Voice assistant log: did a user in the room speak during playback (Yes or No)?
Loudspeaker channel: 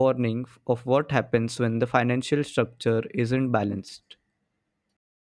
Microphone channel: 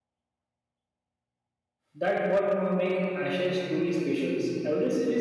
Yes